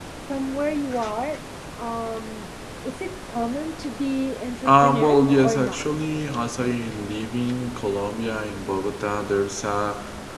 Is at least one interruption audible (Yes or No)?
Yes